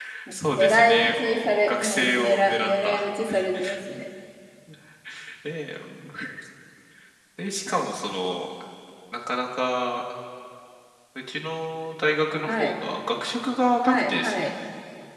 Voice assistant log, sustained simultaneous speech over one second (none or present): present